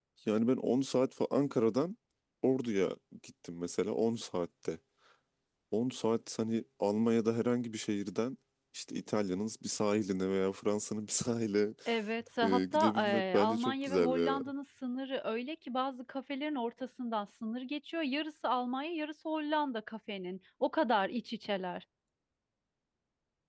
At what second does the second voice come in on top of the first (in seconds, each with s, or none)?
12.4 s